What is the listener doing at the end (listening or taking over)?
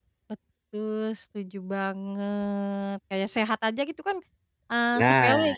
listening